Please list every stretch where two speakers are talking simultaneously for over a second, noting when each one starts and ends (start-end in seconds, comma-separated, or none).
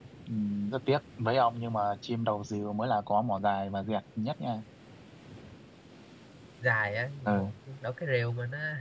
none